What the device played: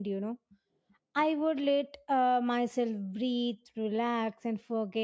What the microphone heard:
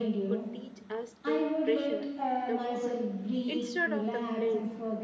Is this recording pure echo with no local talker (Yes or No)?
No